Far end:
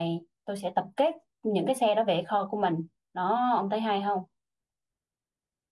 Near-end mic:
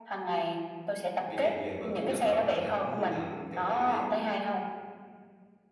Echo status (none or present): present